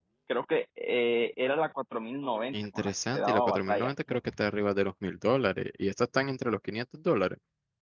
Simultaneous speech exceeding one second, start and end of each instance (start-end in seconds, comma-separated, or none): 2.5-4.2